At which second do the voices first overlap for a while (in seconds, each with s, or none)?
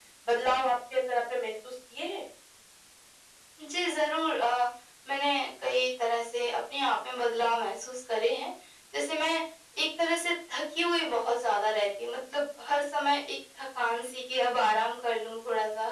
none